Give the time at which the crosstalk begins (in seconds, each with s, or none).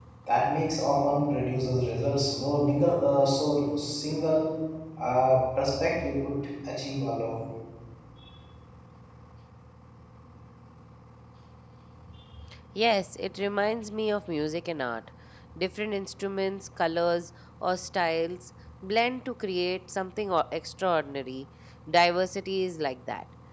none